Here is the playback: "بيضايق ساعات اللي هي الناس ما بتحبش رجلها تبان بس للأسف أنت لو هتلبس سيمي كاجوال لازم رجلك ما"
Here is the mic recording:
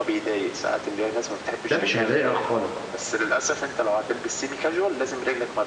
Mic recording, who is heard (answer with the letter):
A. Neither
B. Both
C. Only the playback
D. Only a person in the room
B